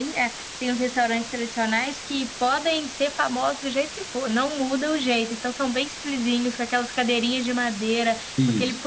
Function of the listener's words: listening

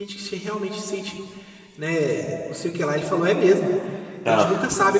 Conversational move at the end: listening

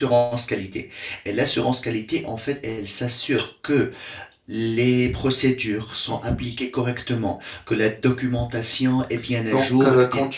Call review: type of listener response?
taking over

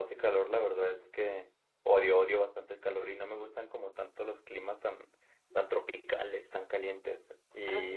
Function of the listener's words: listening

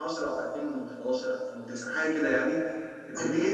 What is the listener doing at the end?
taking over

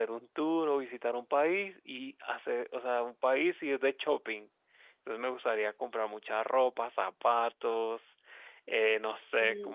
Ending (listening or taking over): listening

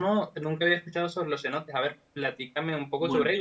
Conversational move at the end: listening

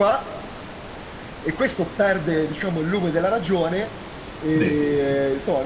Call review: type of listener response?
listening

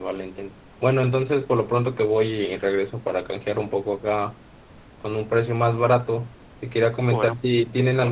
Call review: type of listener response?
listening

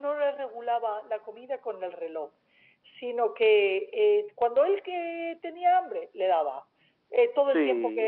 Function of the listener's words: listening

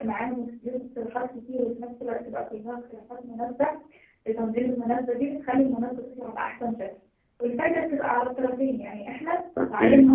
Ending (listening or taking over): listening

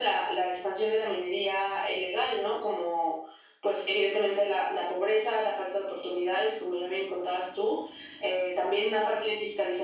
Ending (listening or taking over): listening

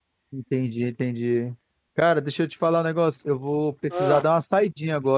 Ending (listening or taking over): listening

